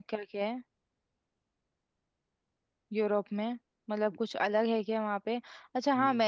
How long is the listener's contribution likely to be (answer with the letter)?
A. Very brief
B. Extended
A